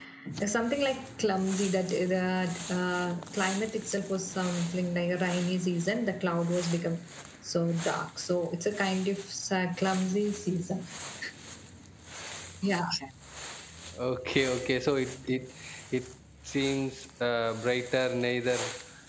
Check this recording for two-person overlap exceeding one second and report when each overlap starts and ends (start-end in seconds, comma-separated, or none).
none